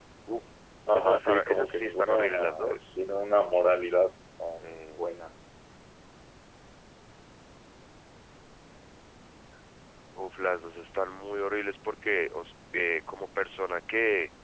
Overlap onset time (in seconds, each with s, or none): 1.0 s